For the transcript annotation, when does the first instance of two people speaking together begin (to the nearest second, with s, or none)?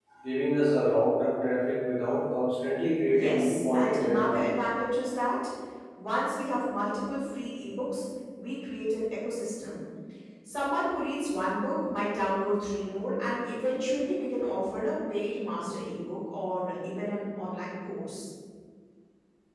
3 s